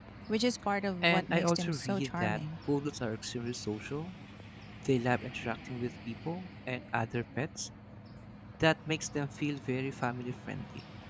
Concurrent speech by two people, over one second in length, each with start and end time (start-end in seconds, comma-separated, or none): 1.0-2.4